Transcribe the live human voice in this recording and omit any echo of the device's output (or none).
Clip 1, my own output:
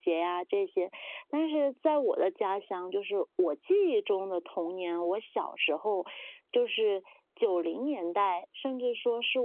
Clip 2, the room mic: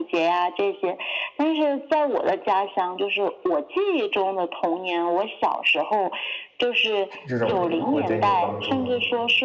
这这种会对你有帮助吗？